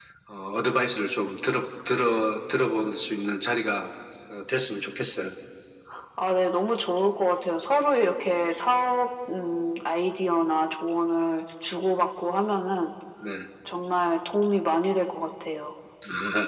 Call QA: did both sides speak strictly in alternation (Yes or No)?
Yes